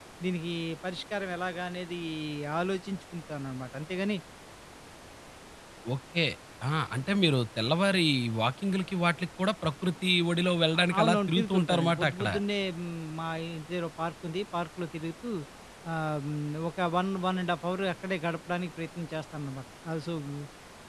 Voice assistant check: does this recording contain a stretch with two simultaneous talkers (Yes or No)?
Yes